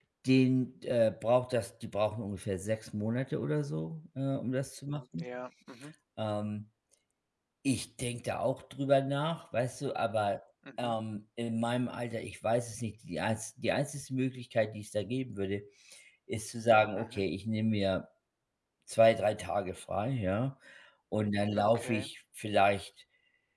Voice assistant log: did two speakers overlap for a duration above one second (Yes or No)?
No